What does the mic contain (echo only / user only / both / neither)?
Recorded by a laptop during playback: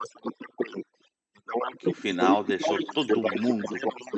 both